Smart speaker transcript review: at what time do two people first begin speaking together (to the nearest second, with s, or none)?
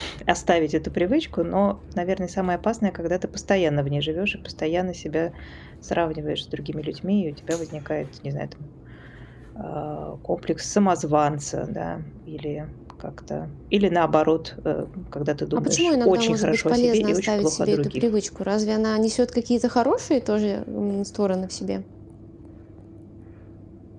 16 s